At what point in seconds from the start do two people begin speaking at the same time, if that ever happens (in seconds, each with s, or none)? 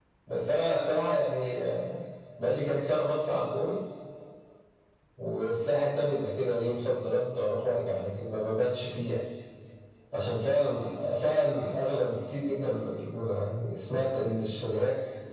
none